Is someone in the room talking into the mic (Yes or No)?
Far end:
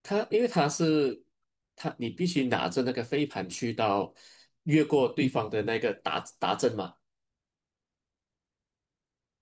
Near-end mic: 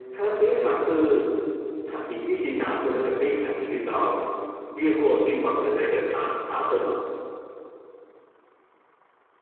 No